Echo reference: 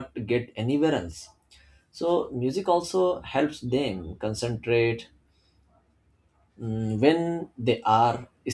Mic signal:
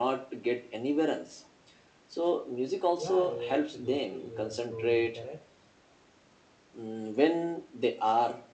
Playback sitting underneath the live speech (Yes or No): No